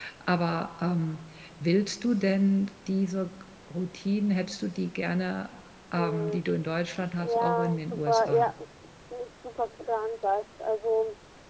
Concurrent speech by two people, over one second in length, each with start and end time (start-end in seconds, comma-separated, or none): 7.2-8.5